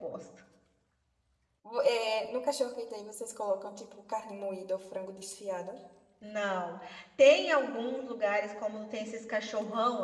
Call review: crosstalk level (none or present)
none